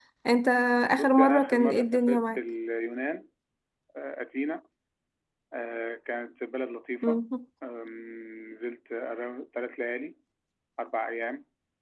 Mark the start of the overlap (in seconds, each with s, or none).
1.0 s